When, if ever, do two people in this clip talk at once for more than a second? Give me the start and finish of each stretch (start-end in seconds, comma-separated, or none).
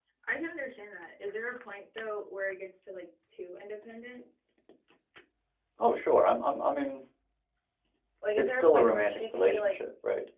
8.4-9.7